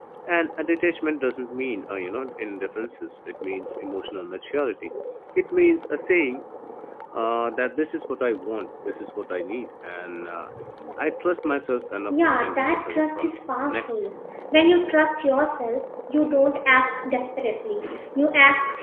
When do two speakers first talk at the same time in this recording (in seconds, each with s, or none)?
12.1 s